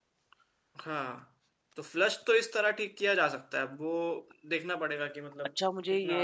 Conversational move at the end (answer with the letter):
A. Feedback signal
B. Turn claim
B